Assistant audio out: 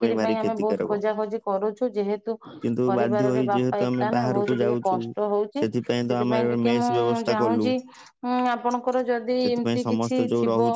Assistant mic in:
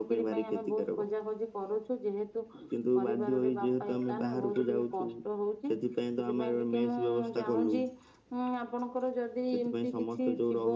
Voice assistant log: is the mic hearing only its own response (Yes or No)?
Yes